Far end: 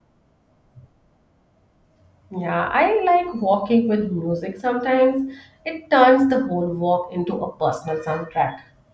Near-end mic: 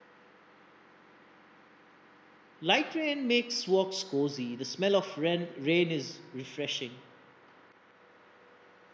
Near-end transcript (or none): Light rain makes walks cozy. The smell of rain, rain is refreshing.